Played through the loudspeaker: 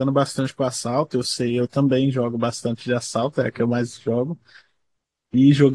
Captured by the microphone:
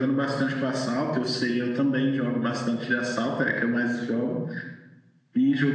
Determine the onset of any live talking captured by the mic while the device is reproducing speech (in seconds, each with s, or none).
none